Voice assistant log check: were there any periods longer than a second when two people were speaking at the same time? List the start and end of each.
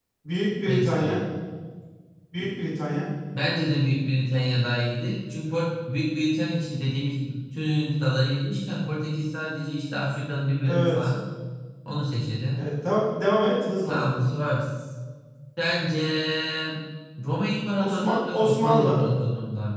17.8-19.0

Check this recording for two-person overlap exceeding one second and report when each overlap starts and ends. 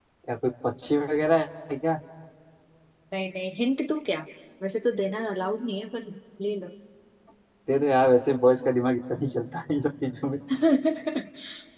none

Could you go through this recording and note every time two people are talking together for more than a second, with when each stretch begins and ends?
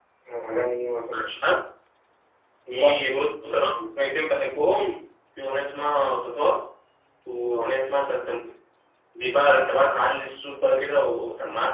2.7-3.9

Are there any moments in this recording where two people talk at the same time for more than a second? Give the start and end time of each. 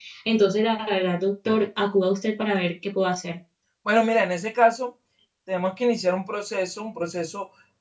none

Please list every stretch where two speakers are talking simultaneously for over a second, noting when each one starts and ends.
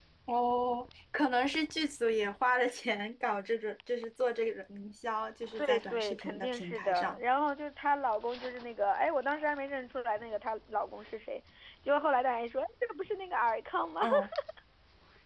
5.6-7.2

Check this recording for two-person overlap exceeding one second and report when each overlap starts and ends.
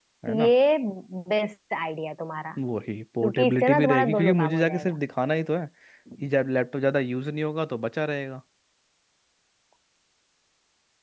3.2-5.0

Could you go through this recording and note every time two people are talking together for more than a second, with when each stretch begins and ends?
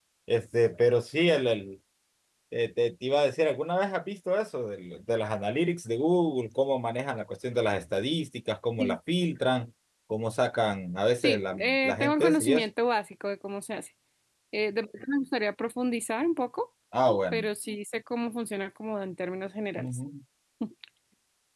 11.2-12.7

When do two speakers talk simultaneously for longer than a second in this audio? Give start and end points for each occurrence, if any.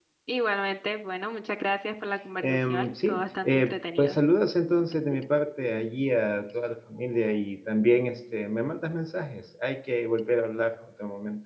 2.4-4.2

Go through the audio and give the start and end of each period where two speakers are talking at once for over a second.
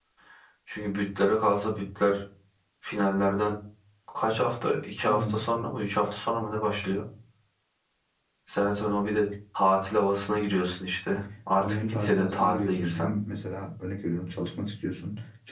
11.6-13.1

